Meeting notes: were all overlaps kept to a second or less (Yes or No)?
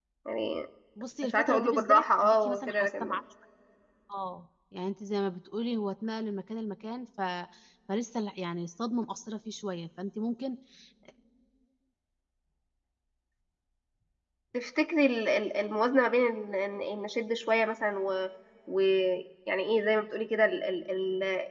No